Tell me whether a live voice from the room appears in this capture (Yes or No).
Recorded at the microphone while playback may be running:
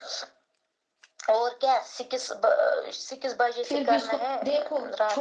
Yes